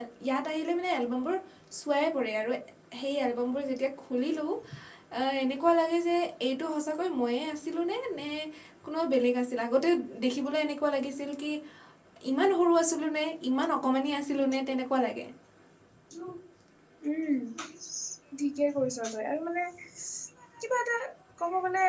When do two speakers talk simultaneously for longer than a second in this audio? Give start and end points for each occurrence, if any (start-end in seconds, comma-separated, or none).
none